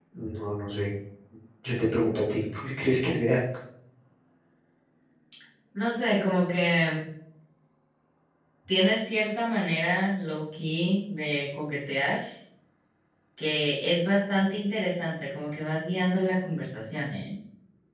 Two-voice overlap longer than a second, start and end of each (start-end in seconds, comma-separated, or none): none